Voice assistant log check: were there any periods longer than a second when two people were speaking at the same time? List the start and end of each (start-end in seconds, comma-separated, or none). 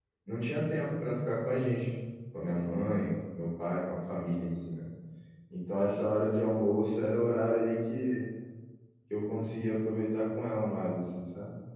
none